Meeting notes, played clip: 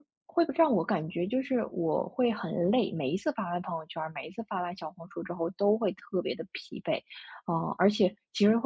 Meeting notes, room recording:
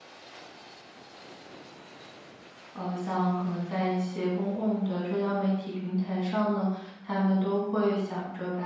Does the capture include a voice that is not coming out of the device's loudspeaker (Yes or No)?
Yes